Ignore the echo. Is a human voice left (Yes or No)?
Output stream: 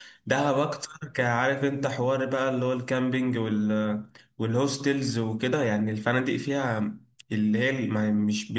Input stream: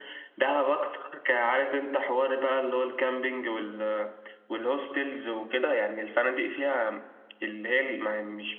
No